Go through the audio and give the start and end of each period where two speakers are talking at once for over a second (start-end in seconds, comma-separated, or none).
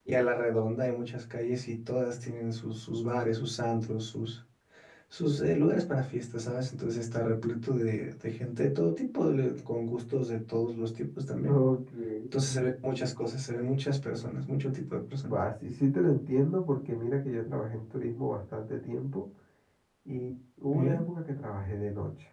none